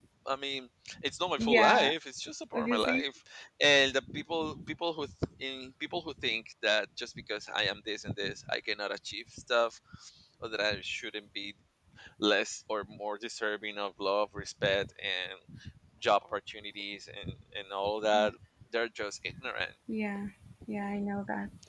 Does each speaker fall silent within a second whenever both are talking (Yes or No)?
Yes